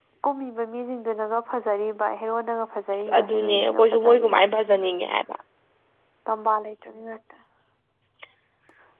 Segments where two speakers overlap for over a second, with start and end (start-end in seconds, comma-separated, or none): 2.9-4.4